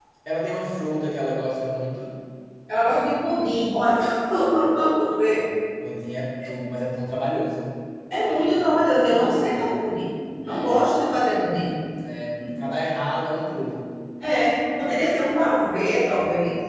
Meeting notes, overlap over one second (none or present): none